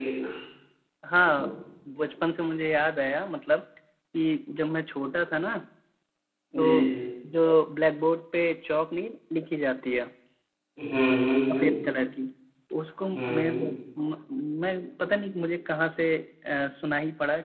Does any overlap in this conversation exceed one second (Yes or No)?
No